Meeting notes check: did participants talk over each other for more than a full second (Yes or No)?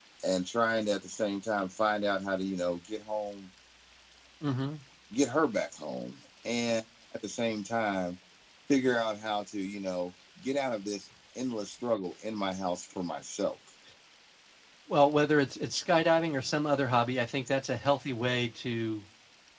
No